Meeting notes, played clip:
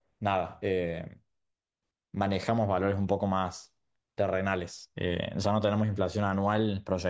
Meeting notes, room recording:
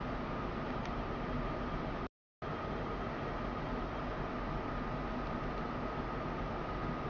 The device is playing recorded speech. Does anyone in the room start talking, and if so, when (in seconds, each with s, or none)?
none